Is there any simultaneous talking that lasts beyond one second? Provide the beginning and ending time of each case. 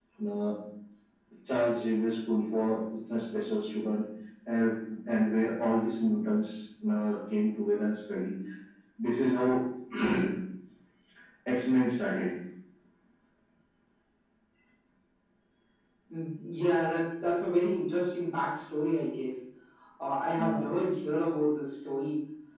none

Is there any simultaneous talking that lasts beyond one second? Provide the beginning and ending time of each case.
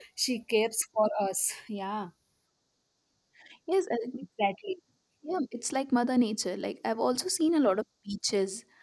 none

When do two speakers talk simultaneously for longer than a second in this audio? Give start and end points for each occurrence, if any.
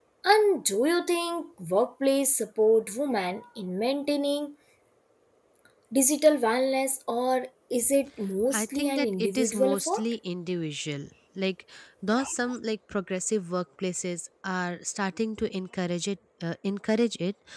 8.5-10.0

